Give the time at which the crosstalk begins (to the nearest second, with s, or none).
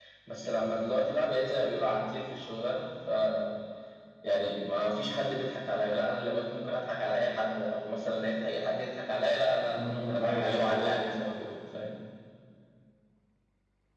10 s